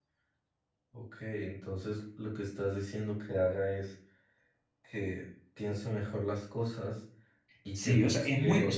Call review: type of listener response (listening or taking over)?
taking over